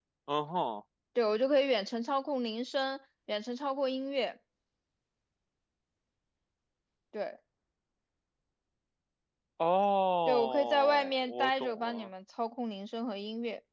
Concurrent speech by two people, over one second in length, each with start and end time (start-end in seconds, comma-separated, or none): 10.3-12.1